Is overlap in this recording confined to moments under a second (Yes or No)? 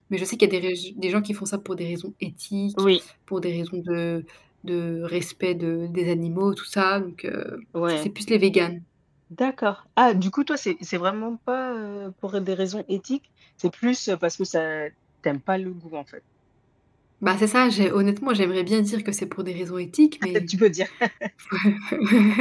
Yes